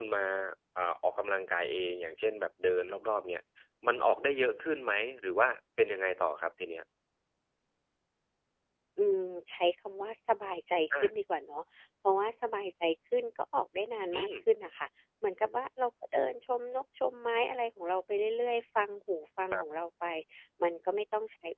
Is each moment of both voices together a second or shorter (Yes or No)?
Yes